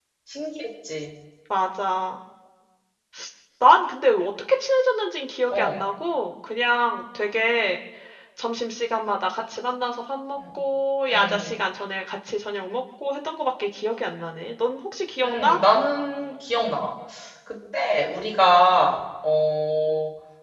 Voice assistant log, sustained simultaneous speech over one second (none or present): none